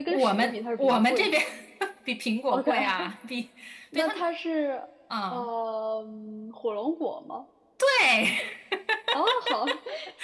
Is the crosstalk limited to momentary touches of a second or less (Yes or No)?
No